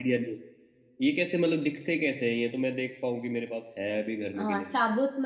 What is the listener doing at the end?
taking over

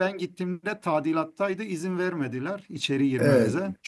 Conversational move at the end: taking over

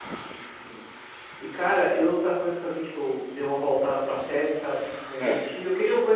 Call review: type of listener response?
listening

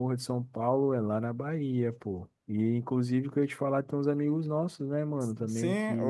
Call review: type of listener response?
taking over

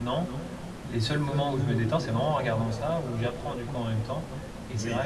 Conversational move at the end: listening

